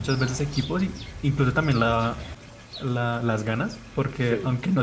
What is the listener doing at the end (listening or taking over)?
listening